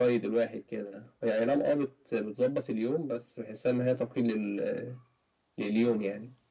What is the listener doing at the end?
taking over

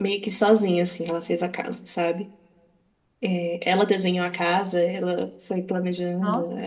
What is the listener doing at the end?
listening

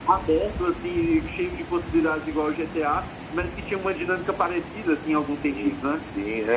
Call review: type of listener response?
taking over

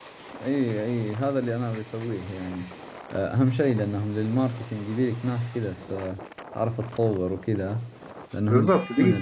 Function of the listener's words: taking over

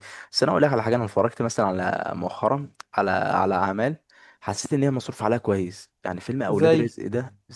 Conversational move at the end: listening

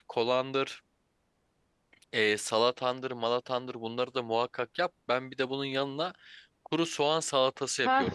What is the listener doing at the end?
taking over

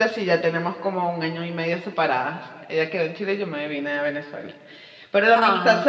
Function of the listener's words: listening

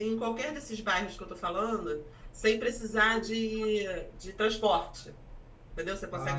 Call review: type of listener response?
listening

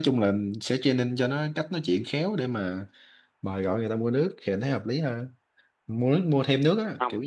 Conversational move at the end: listening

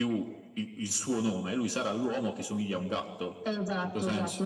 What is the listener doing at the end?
taking over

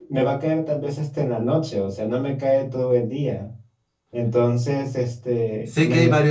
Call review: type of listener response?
taking over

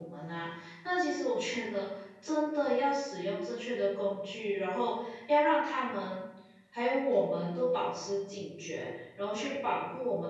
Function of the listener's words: listening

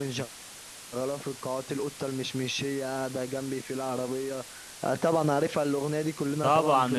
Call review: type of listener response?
taking over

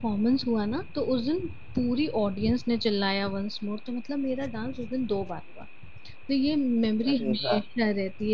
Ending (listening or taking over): listening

